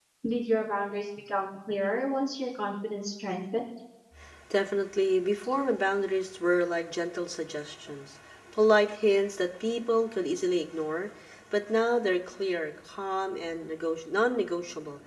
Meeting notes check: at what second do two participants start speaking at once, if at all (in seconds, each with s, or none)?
none